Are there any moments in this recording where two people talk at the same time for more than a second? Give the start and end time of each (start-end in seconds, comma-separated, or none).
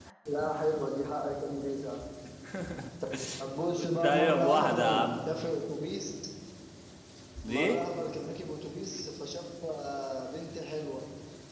3.8-5.0